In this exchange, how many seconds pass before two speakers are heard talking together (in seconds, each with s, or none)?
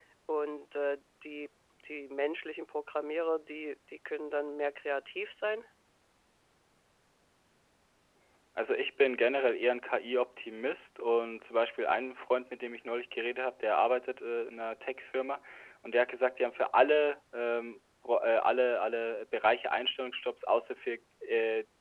none